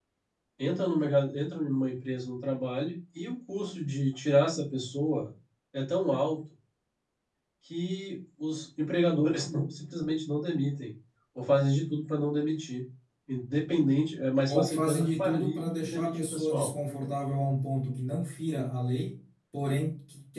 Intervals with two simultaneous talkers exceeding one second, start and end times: 14.5-16.7

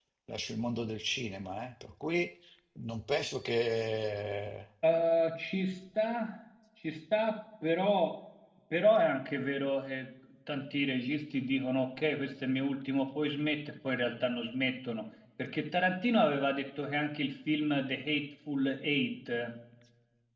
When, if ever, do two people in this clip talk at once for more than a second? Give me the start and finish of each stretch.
none

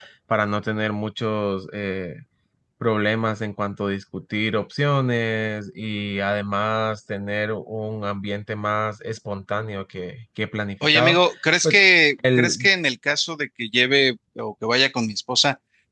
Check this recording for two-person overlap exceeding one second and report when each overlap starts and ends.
none

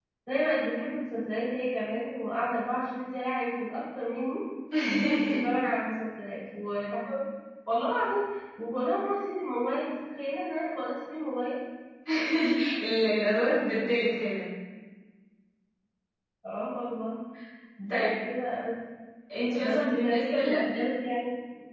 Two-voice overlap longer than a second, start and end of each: 19.6-21.0

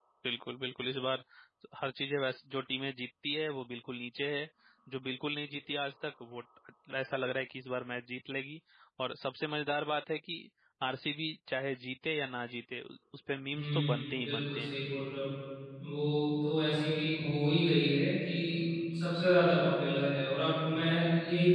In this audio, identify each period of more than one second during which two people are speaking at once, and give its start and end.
13.5-14.8

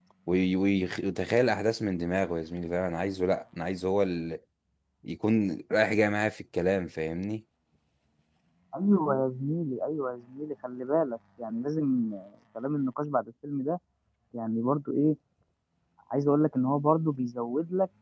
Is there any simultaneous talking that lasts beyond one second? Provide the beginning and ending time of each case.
none

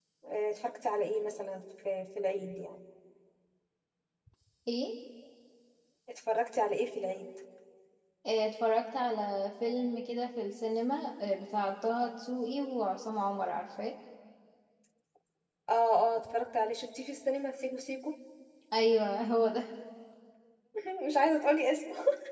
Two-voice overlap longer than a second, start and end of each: none

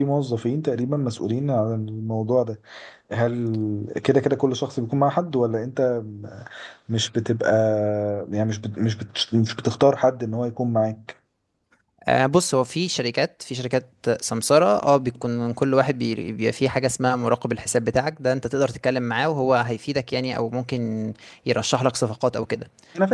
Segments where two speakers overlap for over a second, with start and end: none

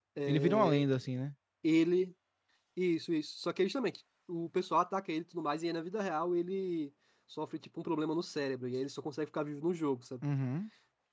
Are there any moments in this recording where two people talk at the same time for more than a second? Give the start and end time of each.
none

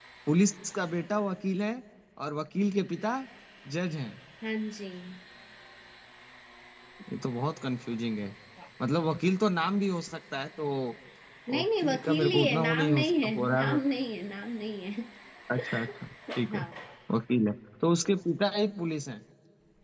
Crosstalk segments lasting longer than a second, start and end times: 11.5-13.8

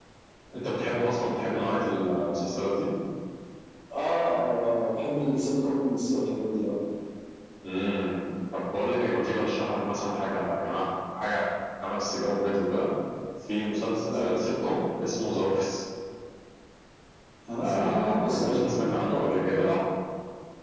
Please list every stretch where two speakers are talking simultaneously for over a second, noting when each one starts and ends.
17.6-19.7

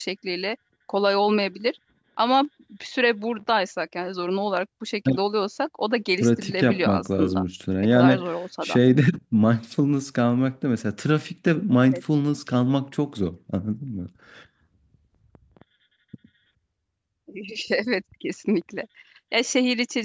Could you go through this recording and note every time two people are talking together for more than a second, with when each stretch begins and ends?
6.2-7.4

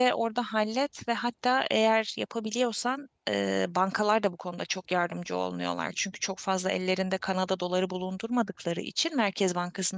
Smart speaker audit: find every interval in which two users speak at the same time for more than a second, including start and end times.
none

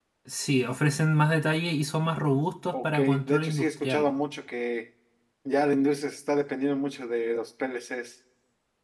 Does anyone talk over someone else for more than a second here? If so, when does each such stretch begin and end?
2.7-4.0

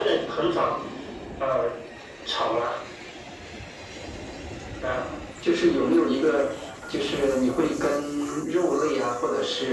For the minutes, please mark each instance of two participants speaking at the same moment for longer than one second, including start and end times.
none

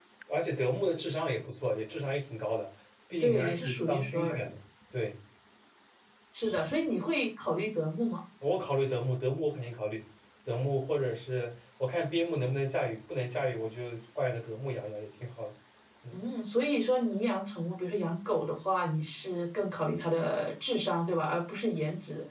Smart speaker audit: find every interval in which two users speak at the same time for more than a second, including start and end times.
3.2-4.5

